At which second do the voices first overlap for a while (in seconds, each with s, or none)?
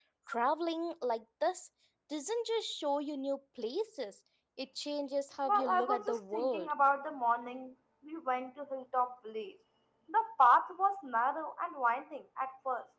5.5 s